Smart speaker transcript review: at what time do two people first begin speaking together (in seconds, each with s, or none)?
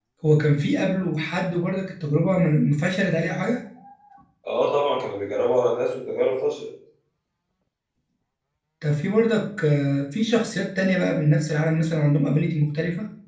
none